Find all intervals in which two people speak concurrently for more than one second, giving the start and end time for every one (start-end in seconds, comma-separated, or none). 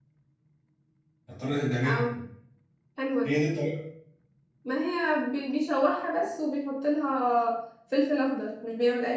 none